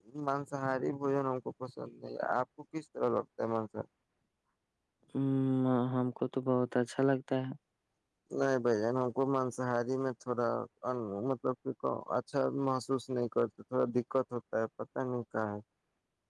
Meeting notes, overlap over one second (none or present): none